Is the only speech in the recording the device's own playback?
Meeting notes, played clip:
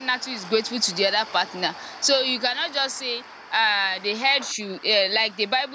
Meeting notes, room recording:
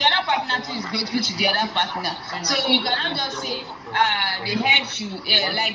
No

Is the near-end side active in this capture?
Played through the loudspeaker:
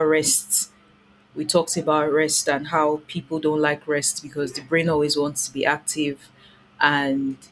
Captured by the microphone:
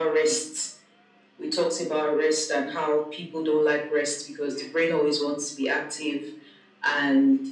No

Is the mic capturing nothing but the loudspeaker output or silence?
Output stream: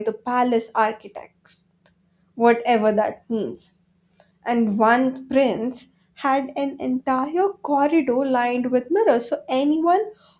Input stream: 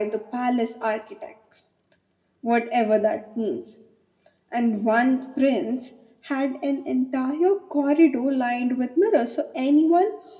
Yes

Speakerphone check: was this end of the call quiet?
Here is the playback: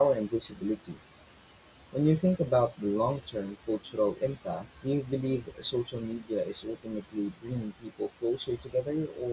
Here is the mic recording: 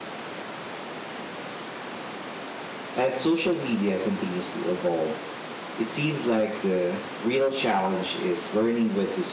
No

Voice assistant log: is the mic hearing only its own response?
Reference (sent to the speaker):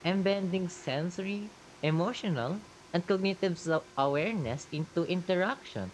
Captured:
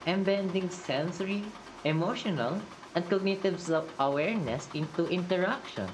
Yes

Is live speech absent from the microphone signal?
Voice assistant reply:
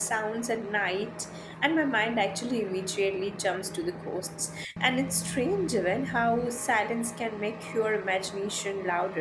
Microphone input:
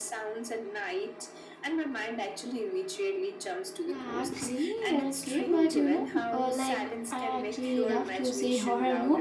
No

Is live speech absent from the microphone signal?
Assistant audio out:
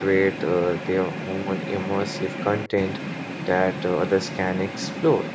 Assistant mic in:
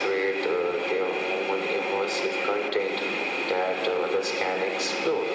Yes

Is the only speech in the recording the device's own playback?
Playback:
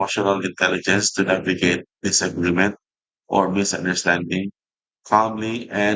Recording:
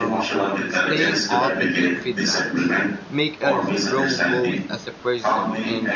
No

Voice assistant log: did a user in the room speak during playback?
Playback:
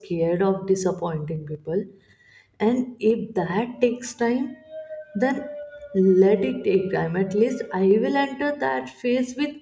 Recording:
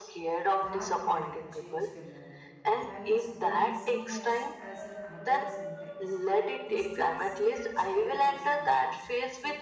Yes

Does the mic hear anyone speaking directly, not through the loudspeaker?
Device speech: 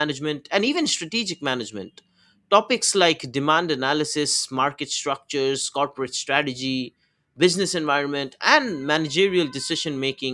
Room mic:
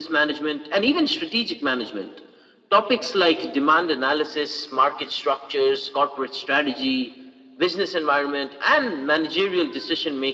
No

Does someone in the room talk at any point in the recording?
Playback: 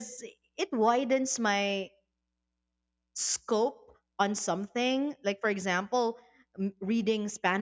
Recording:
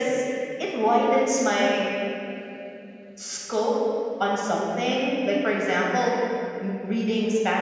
No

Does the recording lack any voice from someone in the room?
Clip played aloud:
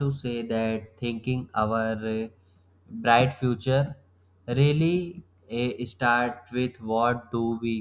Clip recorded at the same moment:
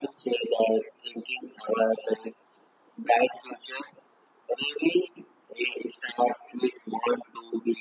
Yes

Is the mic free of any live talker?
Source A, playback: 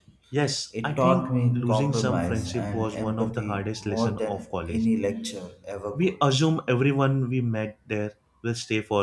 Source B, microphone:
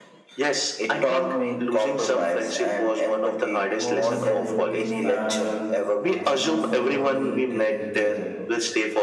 No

